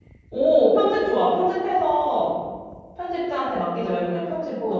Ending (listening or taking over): taking over